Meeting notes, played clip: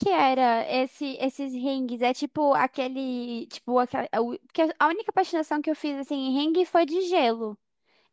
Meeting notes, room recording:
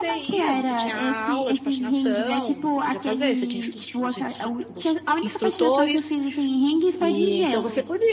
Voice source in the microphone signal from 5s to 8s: both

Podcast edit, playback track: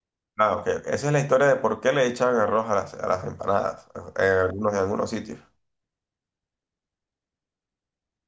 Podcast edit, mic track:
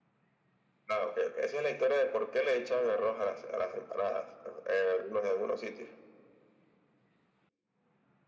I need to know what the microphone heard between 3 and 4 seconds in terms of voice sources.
echo only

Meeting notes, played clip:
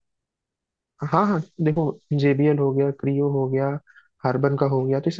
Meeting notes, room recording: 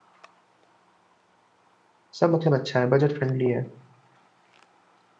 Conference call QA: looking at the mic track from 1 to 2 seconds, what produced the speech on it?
neither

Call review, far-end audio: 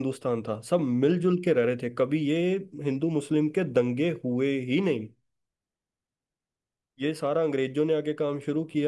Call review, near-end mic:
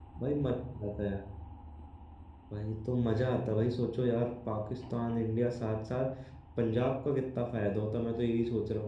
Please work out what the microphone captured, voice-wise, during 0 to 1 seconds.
user only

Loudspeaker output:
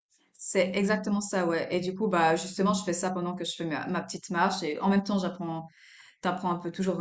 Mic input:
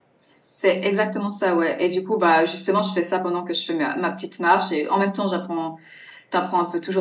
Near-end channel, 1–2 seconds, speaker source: echo only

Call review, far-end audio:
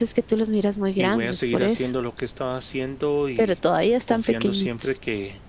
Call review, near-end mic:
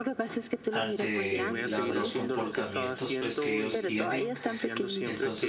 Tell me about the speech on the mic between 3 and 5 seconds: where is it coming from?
both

